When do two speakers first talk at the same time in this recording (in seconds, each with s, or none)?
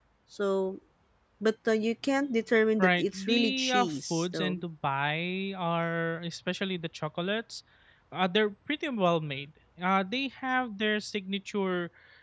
2.8 s